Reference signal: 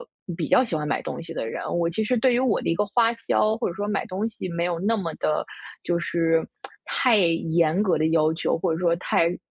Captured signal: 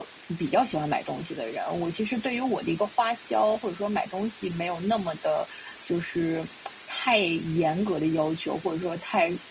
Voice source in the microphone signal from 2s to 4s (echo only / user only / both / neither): echo only